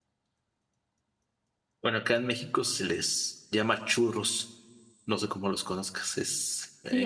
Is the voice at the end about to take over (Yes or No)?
Yes